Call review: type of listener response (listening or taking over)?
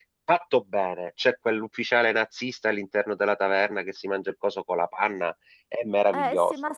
taking over